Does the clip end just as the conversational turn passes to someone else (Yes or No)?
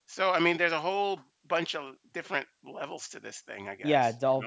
Yes